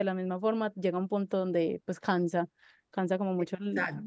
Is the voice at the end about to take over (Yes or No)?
Yes